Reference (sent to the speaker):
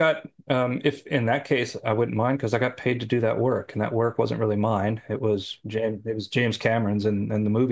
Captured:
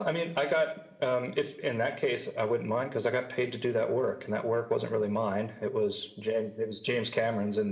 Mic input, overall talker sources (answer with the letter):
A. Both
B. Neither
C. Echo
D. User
C